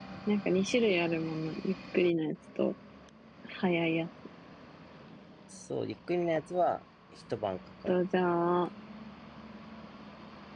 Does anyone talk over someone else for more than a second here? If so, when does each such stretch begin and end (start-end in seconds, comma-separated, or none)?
none